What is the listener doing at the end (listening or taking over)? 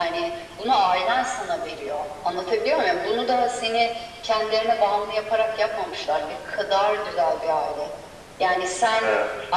listening